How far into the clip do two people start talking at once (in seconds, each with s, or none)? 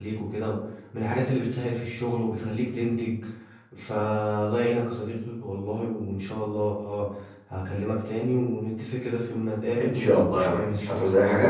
9.8 s